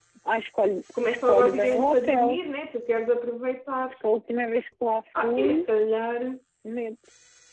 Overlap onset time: 1.0 s

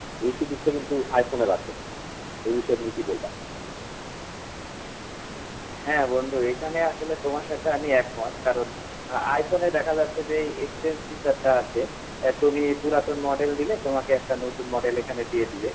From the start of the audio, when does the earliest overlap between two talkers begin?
none

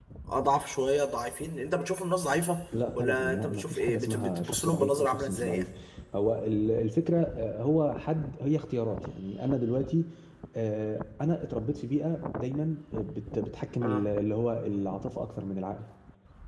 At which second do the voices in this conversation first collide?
3.0 s

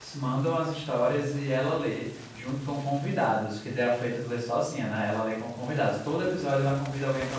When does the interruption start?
none

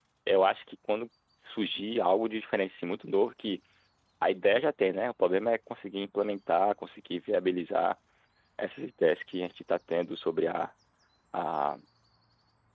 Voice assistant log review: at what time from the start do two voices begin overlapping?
none

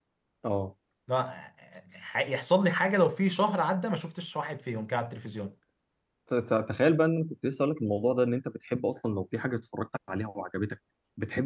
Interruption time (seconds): none

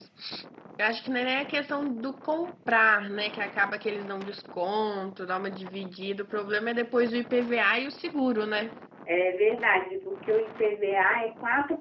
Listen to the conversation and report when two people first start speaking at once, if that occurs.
none

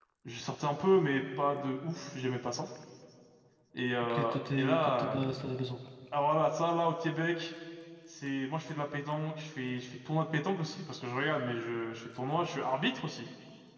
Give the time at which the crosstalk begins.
4.0 s

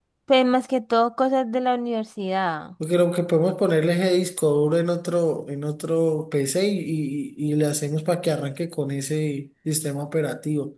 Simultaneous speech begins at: none

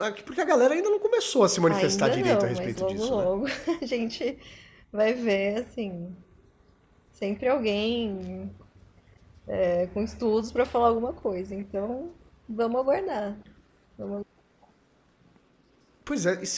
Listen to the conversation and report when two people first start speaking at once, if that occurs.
1.7 s

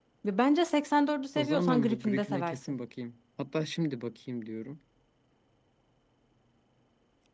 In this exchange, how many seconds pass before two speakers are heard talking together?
1.4 s

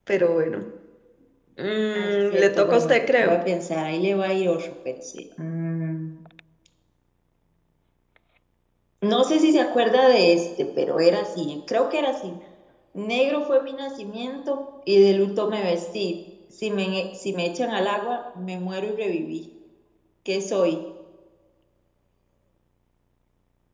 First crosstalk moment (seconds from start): 1.9 s

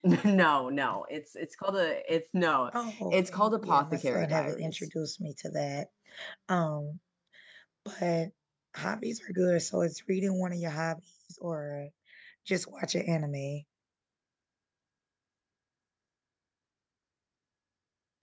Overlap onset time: 3.1 s

